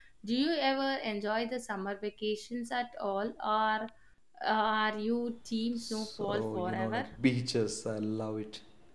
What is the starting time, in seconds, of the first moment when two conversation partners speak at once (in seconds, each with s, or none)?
5.8 s